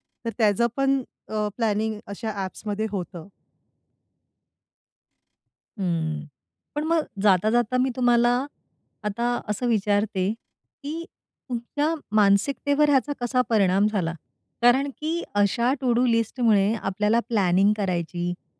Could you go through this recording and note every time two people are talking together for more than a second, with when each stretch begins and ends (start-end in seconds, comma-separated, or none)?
none